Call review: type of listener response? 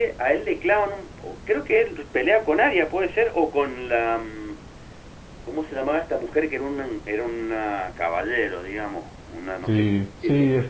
taking over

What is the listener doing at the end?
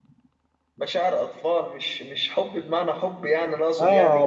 taking over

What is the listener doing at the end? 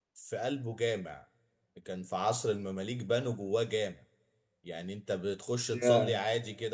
listening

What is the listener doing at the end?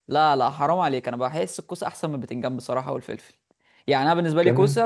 listening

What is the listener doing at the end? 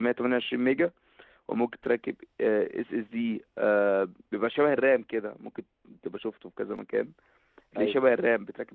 listening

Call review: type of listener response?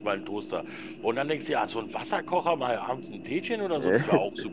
listening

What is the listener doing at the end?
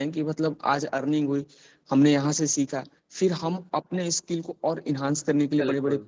listening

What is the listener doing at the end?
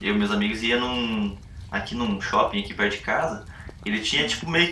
listening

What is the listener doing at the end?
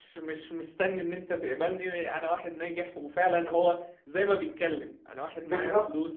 listening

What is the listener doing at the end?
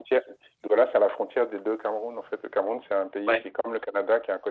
listening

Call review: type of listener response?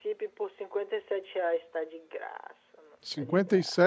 taking over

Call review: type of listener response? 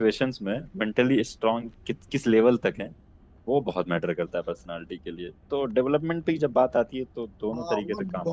taking over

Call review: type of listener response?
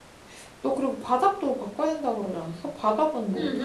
taking over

